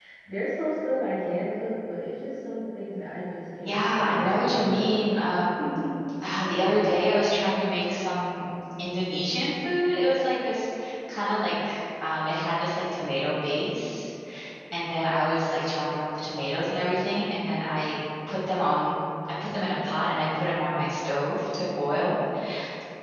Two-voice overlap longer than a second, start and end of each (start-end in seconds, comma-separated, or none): 3.6-5.0